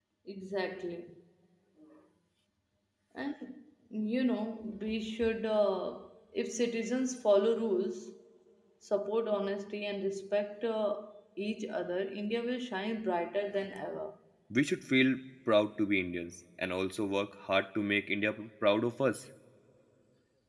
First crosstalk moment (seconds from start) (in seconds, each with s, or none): none